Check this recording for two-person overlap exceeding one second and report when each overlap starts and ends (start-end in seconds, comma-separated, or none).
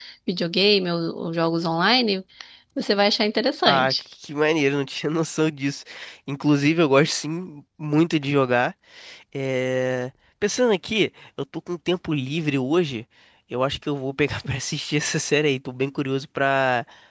none